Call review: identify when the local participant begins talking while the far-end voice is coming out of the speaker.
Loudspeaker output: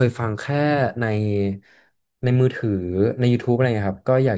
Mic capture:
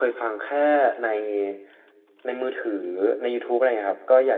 none

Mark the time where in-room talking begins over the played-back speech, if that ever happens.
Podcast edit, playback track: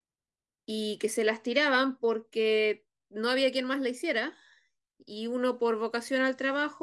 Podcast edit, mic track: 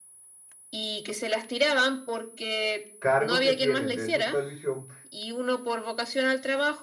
3.0 s

